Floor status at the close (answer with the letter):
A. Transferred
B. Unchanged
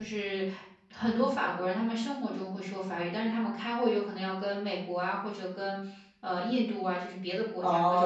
A